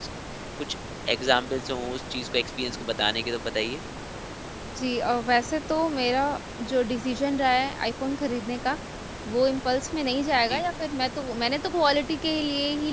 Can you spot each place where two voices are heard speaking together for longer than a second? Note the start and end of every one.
none

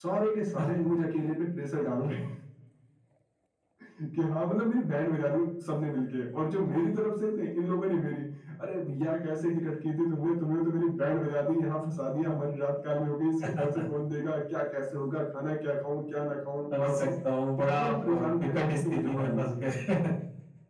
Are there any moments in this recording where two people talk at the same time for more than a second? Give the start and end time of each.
17.6-19.5

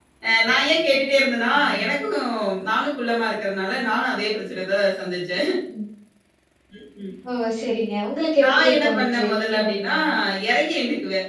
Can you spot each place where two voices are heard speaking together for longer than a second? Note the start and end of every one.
8.4-9.9

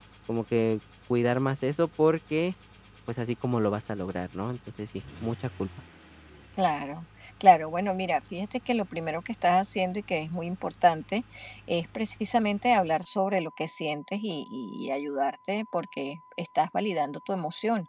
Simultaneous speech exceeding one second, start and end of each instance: none

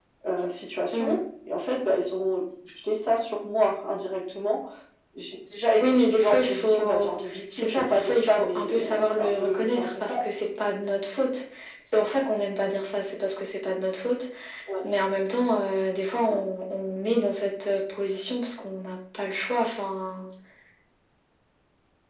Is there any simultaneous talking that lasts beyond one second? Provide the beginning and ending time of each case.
5.8-10.1

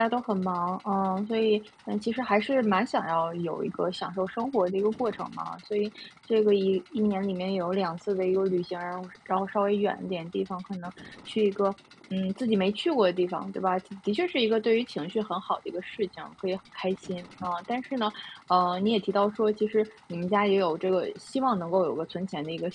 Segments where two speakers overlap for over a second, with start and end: none

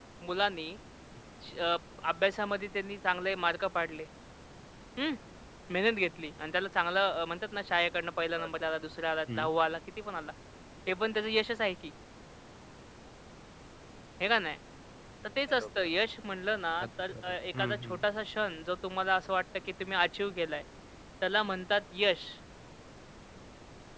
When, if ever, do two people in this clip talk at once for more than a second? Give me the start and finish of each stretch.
16.8-18.0

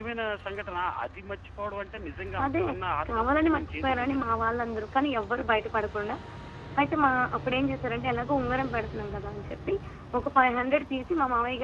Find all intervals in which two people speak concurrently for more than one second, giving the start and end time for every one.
3.1-4.4

